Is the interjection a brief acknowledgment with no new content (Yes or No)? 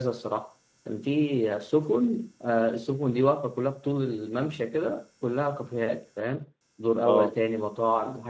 Yes